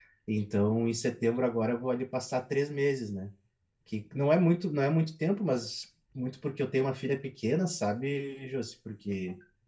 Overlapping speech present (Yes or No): No